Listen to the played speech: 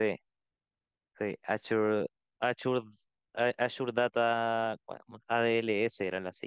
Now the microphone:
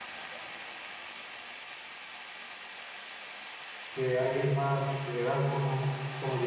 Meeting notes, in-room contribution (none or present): present